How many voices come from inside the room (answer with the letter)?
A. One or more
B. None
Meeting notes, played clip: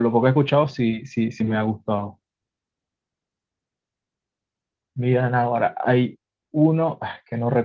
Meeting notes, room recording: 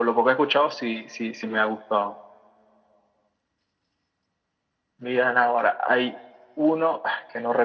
B